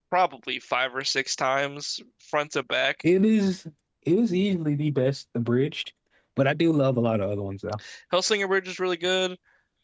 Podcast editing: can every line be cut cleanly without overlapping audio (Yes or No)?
Yes